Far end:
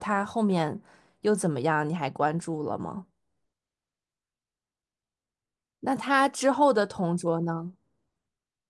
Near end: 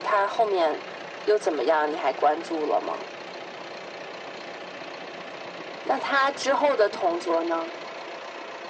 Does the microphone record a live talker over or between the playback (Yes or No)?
No